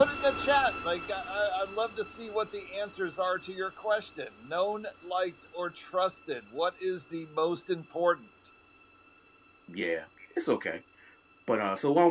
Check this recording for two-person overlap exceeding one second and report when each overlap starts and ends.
none

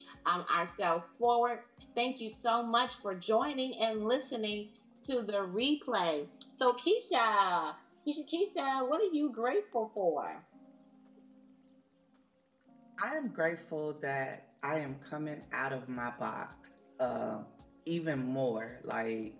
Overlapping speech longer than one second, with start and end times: none

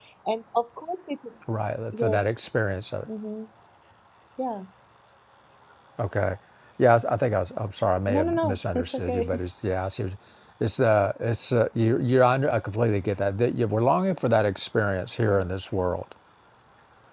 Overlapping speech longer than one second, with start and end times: 8.1-9.3

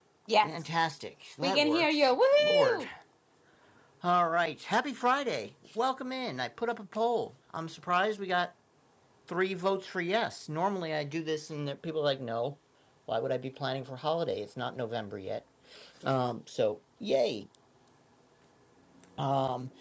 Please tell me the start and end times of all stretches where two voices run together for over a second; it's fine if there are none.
1.4-2.8

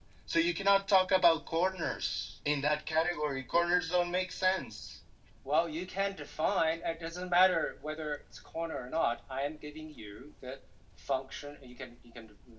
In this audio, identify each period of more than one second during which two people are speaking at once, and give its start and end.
none

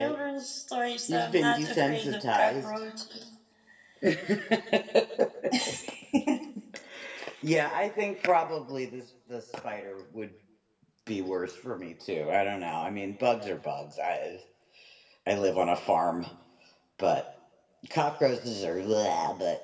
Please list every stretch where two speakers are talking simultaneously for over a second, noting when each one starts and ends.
1.1-2.7

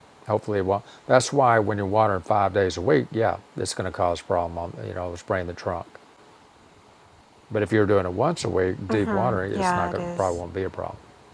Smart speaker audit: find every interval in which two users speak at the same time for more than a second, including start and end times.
8.9-10.3

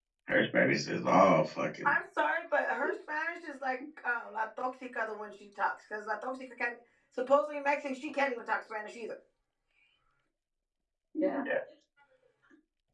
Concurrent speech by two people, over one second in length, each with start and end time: none

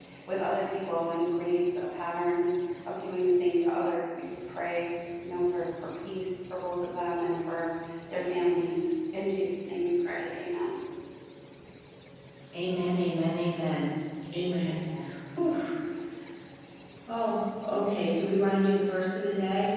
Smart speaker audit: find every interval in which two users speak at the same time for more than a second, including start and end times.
none

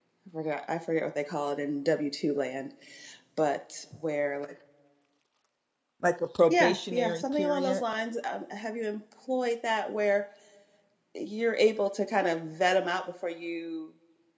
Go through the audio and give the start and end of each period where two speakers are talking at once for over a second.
6.5-7.8

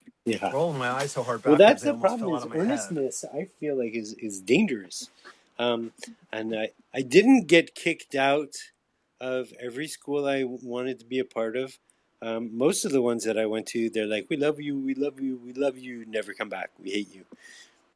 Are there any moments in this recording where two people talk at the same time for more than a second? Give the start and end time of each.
1.5-3.0

